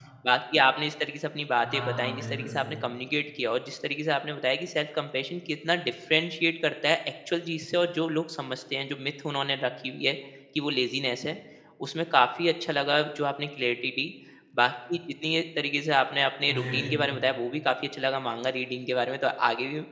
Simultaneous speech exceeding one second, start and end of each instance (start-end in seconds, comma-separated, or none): 1.6-2.8